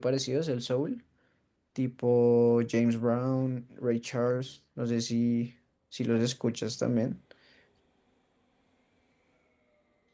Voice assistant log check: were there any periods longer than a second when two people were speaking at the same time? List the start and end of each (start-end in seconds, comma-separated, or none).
none